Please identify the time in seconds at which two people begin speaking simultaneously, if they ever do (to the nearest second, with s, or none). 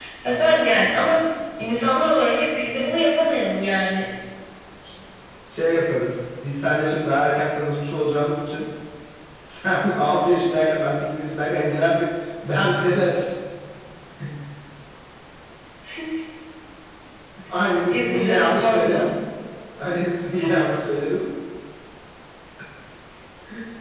18 s